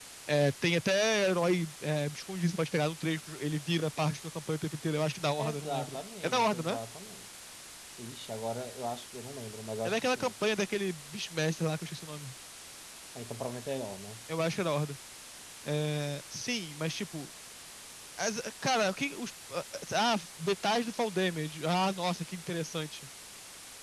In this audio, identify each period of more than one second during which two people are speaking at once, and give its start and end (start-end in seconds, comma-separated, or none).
5.4-6.8